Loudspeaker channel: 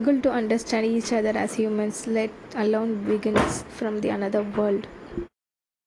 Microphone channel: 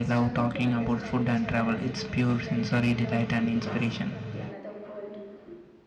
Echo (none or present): present